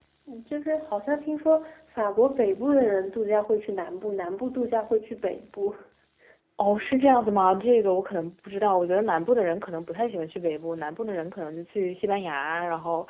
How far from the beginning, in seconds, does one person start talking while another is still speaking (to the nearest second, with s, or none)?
none